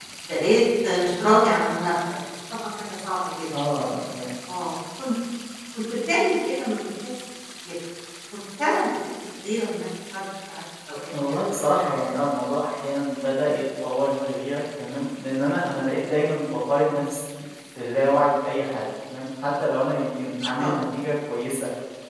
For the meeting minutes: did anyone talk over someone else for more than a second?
No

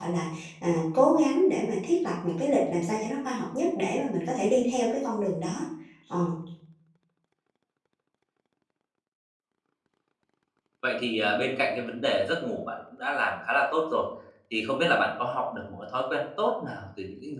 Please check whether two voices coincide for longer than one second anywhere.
No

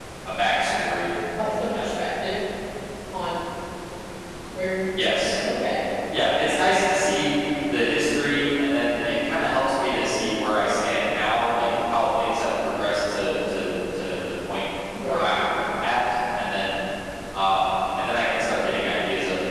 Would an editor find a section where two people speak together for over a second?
No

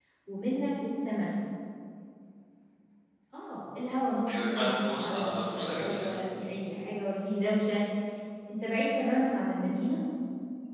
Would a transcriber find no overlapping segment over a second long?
No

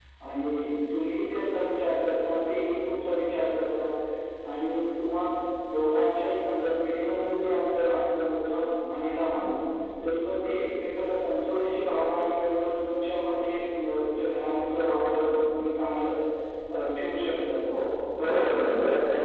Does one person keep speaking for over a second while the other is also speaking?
No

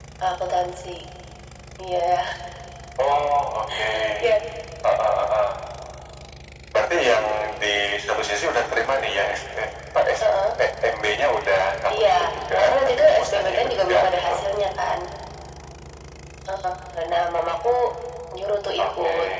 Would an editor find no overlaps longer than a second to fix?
No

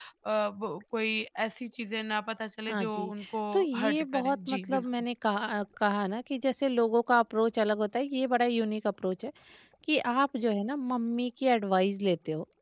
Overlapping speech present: Yes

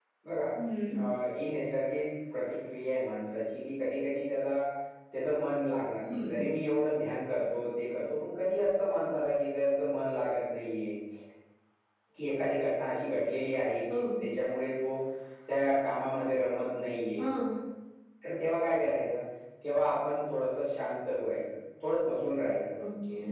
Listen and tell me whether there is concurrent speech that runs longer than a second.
No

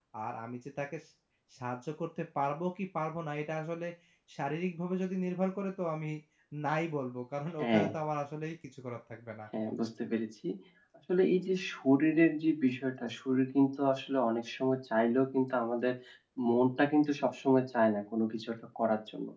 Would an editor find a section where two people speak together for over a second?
No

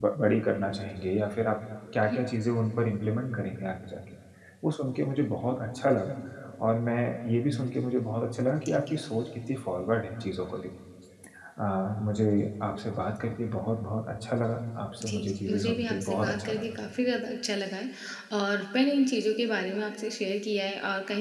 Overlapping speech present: Yes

